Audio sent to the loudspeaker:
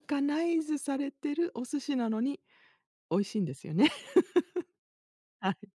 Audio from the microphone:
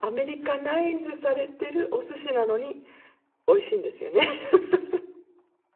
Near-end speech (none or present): none